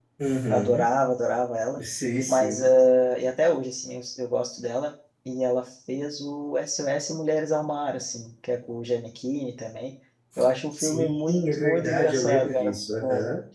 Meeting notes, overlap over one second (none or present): present